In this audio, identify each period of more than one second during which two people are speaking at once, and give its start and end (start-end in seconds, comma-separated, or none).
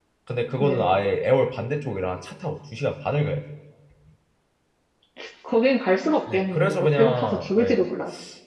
6.3-7.8